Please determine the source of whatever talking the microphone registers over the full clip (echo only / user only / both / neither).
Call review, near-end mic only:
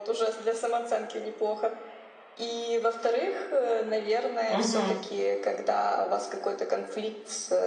both